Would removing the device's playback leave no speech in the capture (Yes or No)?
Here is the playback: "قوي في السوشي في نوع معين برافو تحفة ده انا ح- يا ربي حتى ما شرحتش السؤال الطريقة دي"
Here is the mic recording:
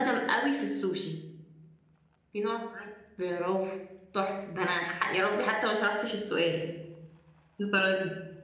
Yes